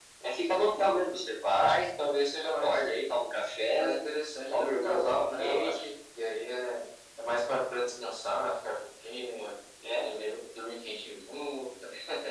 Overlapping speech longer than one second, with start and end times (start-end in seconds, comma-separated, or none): 4.5-5.8